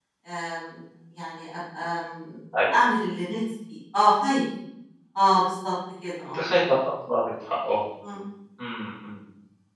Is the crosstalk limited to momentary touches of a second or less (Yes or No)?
Yes